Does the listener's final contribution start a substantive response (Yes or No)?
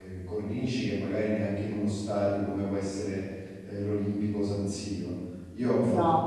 No